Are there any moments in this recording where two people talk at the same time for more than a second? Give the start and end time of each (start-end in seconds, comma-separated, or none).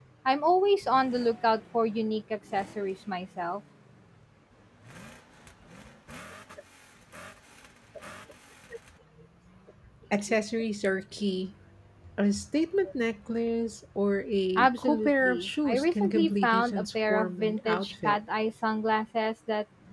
14.6-18.2